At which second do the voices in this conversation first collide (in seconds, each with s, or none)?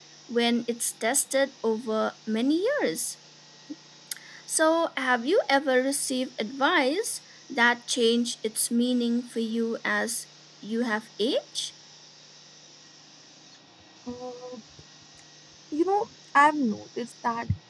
none